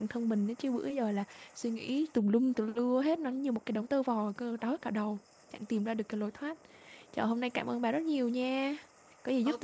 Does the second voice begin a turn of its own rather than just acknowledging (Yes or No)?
Yes